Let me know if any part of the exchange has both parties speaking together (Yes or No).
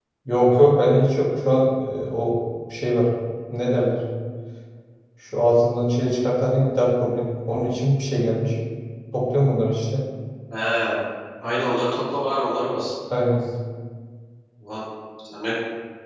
No